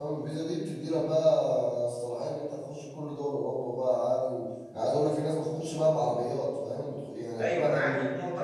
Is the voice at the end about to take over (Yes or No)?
Yes